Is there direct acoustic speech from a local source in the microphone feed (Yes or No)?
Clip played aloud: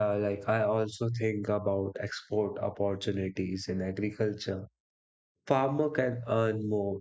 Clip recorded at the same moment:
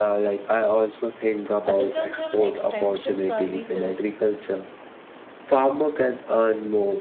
Yes